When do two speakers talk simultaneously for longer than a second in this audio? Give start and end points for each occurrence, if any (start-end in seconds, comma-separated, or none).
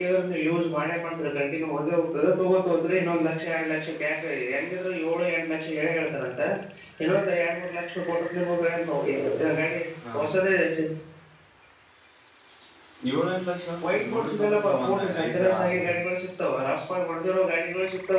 13.8-15.8